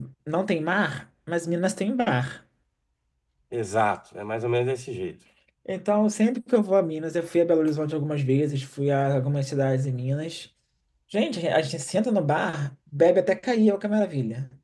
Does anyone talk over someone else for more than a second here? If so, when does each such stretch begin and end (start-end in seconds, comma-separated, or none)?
none